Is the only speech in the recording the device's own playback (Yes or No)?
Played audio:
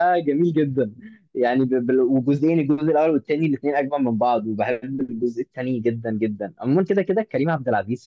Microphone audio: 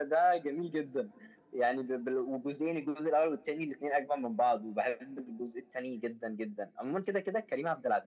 Yes